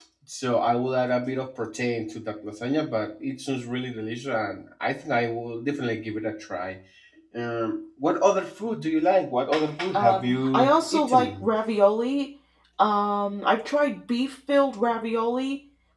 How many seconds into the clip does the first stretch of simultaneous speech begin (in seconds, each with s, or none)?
9.9 s